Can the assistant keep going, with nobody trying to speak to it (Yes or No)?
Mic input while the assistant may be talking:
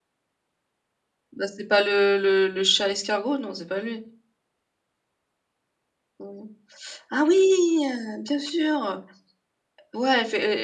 No